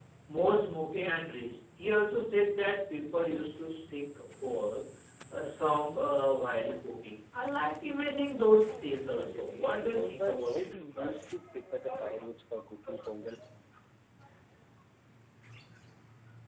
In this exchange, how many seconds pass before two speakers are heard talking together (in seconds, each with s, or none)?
8.7 s